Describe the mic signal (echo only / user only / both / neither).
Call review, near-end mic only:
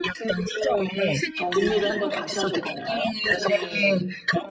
both